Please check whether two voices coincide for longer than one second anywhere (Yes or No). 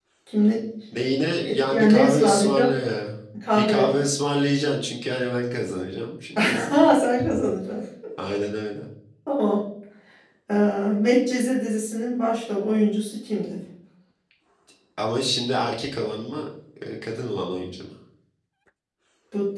Yes